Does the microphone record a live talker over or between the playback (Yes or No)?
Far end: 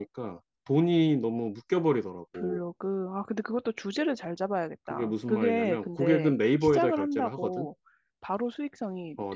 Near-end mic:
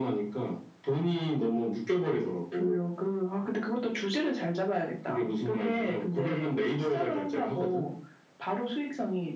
No